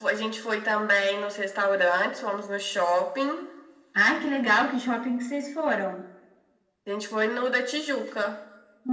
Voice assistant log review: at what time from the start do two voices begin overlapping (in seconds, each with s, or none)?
none